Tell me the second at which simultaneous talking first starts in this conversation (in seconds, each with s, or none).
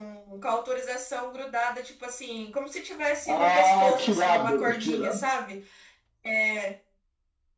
3.2 s